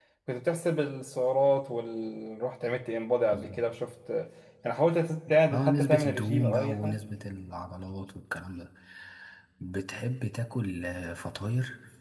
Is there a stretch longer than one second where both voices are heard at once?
Yes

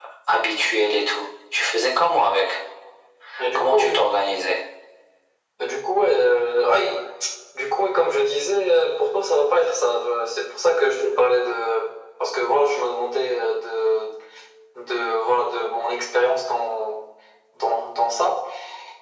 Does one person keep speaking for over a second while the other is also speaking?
No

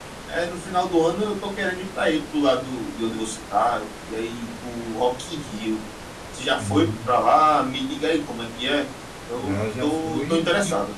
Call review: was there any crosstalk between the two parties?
Yes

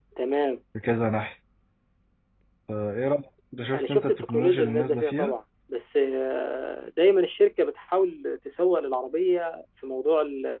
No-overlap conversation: No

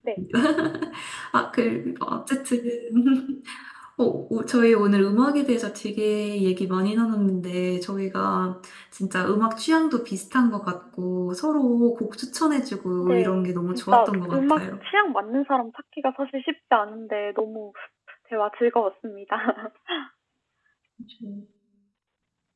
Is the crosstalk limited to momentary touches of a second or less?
No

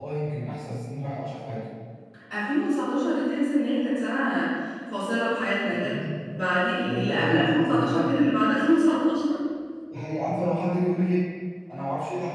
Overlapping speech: Yes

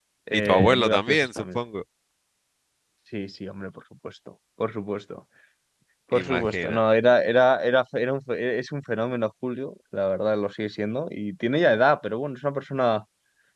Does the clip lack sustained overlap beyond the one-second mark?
No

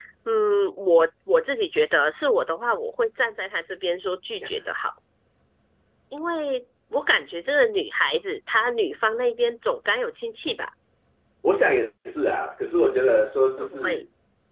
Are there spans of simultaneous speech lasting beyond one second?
No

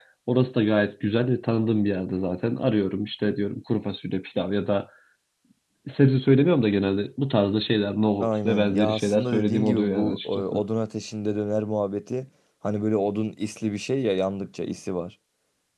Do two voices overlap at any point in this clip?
Yes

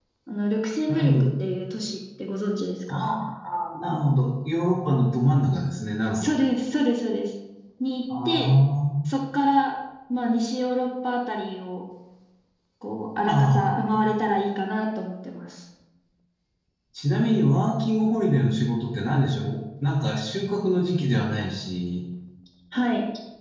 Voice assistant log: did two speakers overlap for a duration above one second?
No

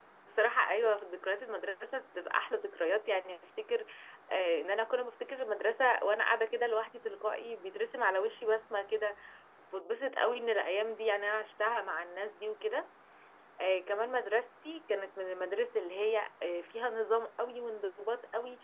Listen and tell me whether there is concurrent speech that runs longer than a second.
No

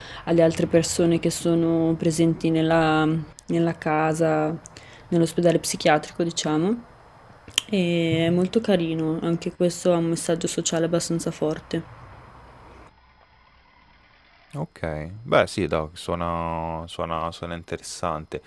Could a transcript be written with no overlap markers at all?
Yes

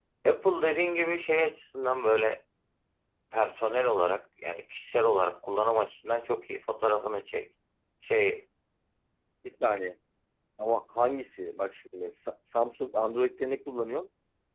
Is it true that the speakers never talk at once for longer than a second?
Yes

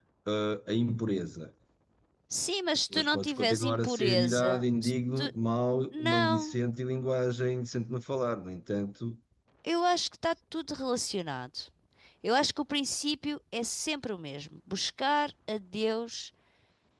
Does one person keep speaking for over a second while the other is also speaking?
Yes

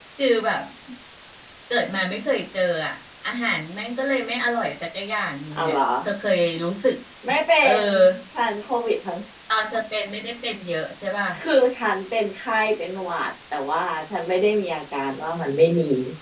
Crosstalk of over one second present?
No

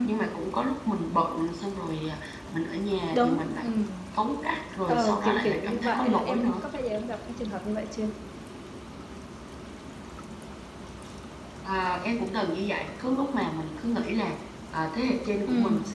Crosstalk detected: Yes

